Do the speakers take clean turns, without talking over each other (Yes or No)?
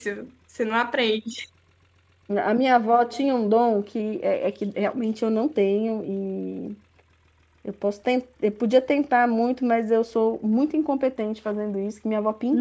Yes